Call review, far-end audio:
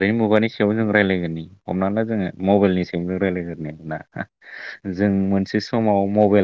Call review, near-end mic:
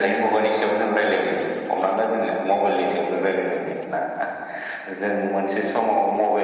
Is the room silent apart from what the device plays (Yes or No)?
Yes